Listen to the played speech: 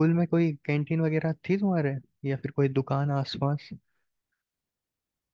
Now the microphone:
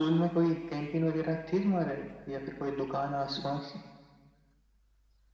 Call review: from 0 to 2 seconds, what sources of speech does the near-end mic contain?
echo only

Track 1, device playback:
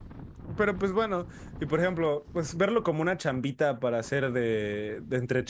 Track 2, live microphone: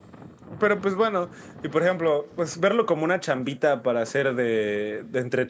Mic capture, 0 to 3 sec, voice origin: echo only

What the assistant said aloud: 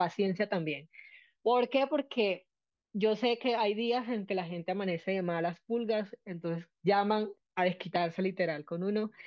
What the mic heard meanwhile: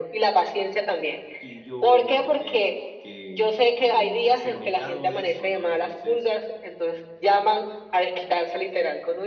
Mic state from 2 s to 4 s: both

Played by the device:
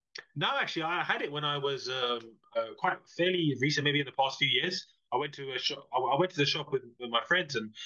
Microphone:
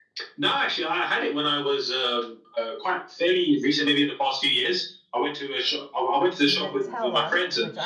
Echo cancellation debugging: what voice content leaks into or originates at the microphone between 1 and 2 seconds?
echo only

